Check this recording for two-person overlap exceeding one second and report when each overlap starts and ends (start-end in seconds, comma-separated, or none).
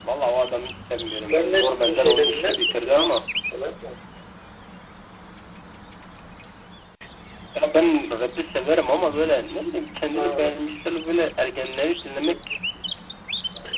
1.2-3.0